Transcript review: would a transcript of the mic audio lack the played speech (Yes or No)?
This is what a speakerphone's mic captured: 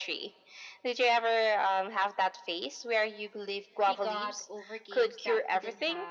No